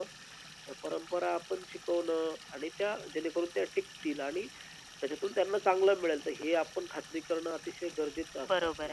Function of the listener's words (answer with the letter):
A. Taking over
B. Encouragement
A